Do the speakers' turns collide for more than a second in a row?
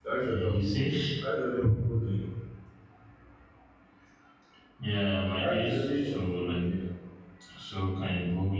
Yes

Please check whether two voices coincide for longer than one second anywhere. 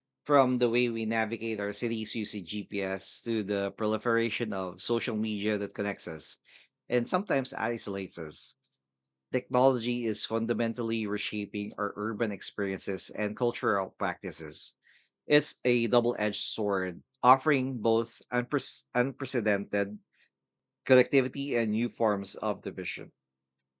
No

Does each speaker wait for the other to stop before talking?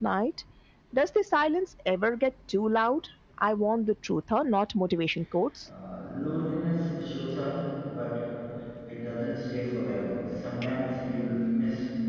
Yes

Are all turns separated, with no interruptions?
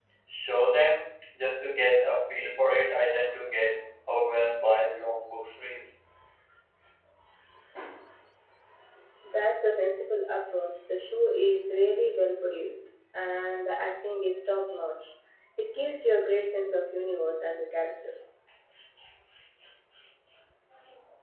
Yes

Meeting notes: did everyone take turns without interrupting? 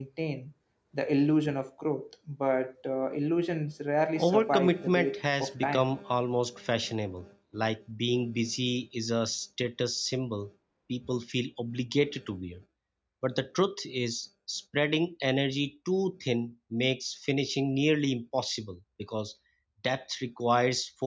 No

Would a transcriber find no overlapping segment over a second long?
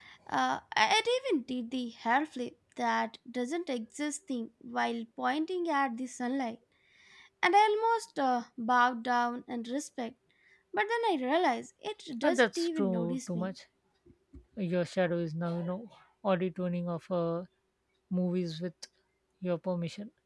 No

